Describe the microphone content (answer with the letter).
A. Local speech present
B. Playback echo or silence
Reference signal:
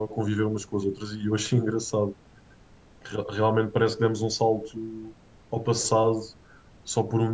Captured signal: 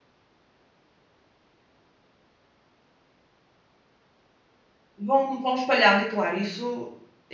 A